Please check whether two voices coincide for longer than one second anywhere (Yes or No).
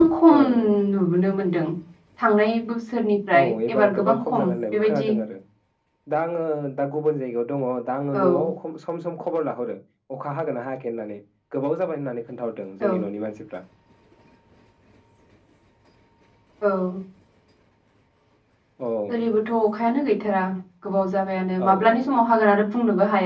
Yes